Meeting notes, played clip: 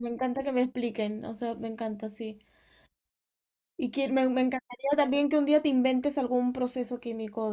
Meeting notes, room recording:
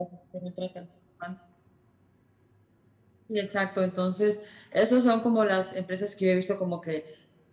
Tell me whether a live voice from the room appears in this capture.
Yes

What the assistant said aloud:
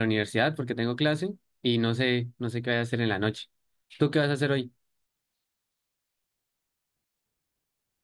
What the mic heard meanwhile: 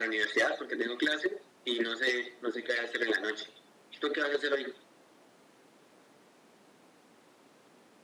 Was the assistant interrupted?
No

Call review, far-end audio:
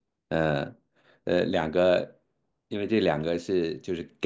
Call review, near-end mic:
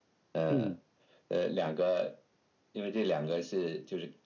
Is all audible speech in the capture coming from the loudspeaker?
No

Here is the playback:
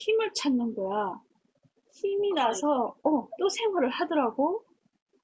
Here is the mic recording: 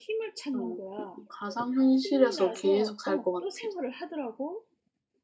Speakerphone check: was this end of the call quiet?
No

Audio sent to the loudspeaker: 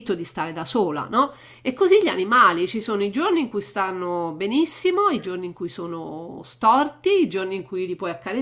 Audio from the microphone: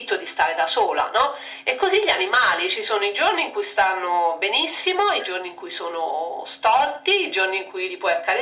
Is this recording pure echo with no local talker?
Yes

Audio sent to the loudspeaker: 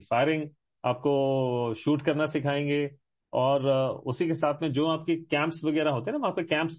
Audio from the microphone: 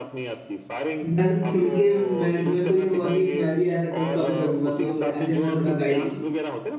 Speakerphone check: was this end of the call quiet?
No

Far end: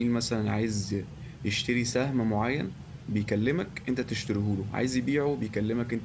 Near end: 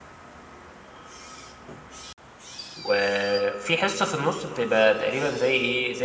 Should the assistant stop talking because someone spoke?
Yes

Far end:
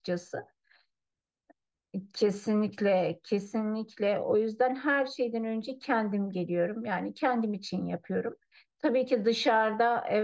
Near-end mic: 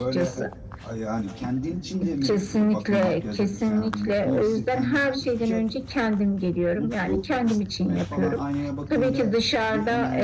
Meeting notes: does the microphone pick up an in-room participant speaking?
Yes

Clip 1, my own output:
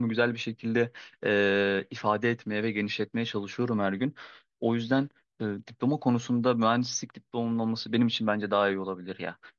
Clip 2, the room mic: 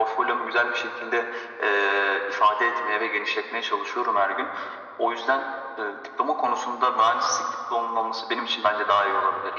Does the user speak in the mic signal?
No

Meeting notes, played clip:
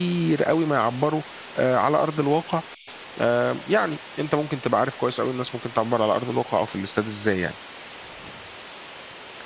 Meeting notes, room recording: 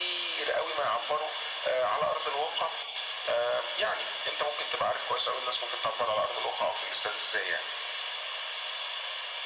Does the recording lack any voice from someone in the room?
Yes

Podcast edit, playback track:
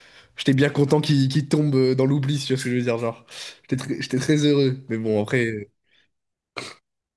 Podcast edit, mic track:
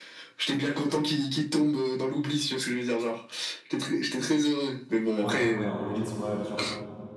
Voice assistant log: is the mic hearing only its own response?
No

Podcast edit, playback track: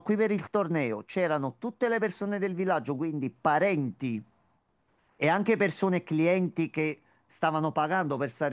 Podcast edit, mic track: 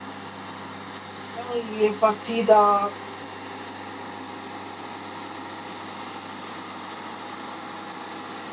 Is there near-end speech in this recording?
Yes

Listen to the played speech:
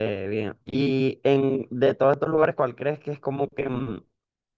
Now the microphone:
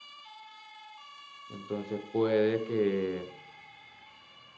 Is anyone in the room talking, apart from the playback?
Yes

